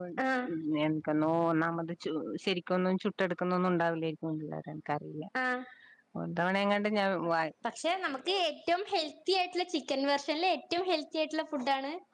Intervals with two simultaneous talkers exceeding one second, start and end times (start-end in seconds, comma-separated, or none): none